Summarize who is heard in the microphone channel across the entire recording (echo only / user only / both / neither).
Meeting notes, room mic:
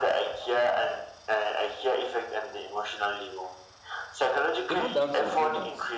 both